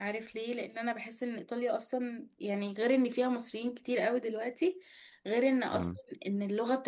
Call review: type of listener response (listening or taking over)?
listening